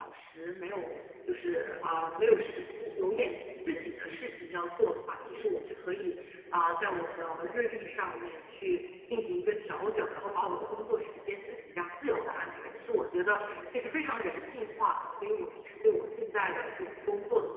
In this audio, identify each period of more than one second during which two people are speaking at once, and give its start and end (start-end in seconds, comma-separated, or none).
none